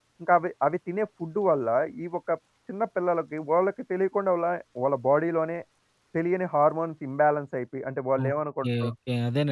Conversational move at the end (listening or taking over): taking over